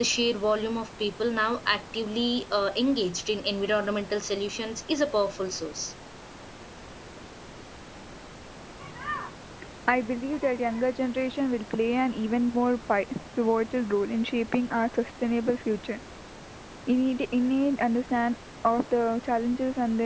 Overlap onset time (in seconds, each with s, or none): none